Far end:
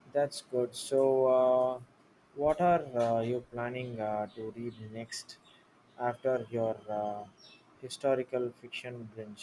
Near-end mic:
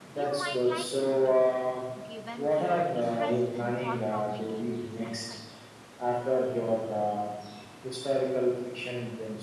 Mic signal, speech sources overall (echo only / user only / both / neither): both